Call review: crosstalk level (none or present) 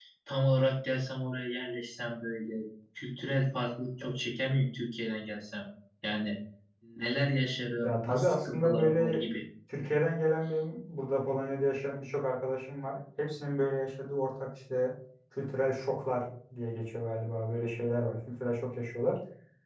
present